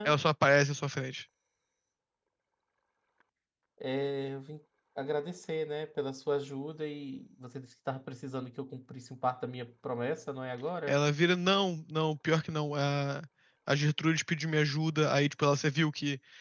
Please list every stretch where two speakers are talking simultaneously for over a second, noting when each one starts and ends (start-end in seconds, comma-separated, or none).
none